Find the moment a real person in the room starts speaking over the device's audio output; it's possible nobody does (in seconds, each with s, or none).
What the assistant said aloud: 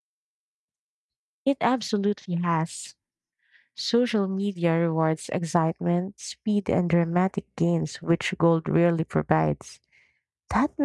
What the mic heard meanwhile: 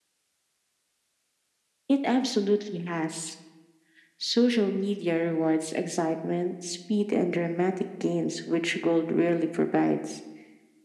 none